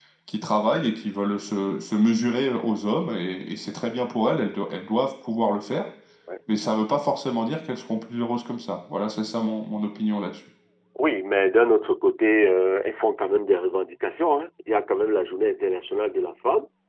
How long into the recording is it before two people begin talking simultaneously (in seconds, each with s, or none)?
none